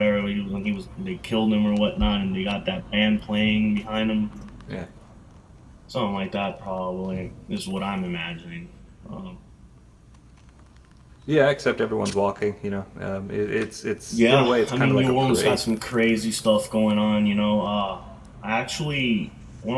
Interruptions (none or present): present